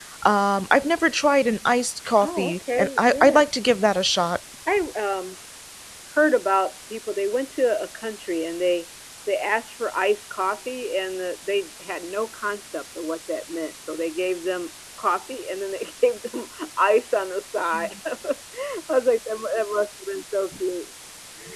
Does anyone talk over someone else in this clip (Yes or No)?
Yes